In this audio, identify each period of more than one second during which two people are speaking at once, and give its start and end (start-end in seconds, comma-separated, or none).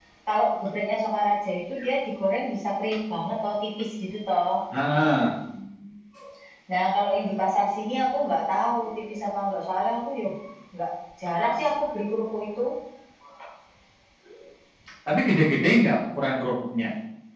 none